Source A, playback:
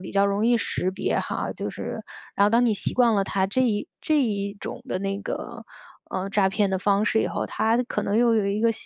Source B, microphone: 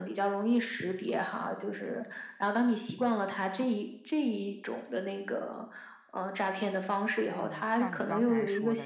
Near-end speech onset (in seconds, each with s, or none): 7.2 s